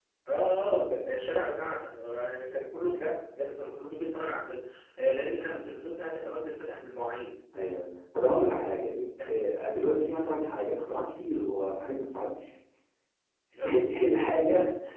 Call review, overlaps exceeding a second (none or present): none